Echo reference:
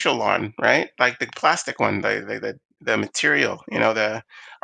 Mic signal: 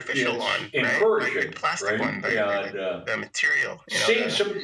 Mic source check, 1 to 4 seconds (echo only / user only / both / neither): both